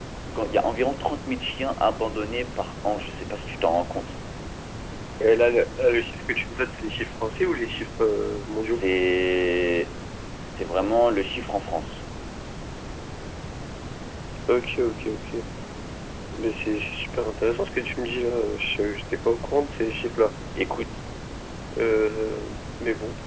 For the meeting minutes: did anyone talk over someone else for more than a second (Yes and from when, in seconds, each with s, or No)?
No